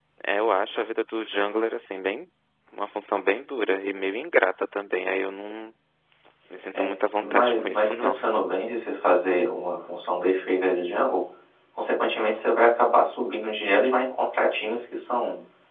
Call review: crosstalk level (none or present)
present